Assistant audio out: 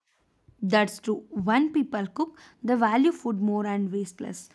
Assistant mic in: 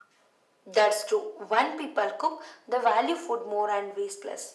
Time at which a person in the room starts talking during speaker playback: none

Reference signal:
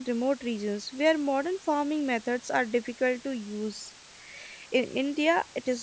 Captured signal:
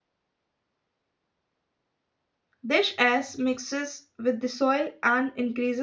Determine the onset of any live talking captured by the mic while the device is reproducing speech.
2.6 s

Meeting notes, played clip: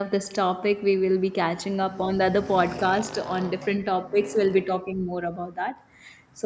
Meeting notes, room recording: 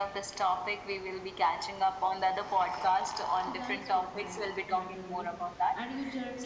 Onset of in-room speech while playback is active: 3.4 s

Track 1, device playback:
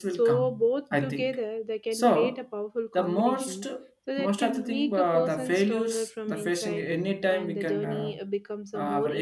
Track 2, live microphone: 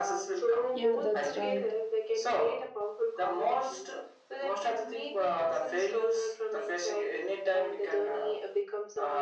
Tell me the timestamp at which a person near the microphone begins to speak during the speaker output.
0.7 s

